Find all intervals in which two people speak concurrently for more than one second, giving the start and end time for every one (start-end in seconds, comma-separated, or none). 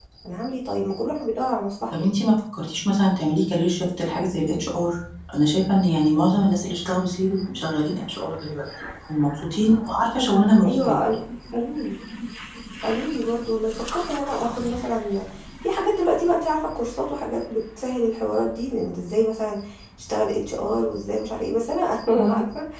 none